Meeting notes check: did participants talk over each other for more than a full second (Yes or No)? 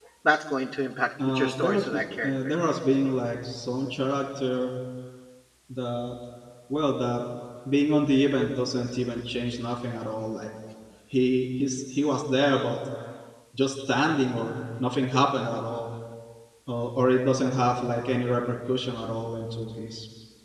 Yes